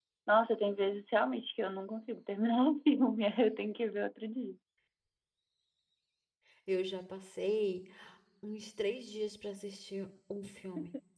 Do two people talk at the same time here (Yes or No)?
No